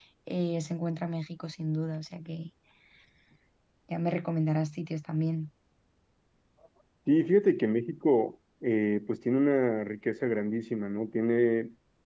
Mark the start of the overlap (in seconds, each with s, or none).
none